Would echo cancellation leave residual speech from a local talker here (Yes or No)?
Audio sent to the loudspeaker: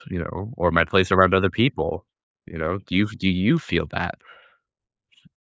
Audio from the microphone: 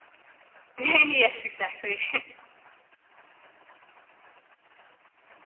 Yes